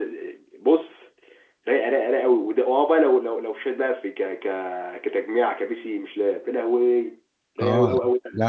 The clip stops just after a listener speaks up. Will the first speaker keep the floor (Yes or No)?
No